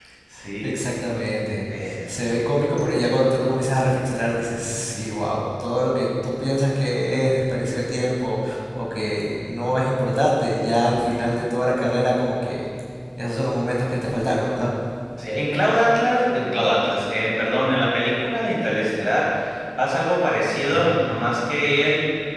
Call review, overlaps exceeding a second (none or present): none